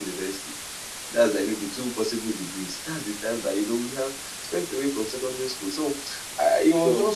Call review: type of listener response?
listening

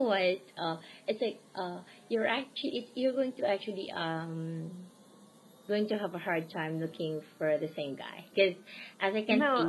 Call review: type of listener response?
taking over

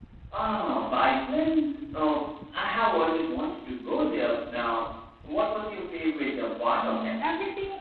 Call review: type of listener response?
taking over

